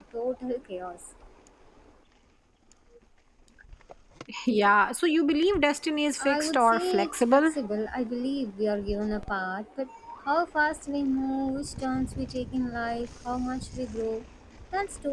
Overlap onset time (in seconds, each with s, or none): 6.2 s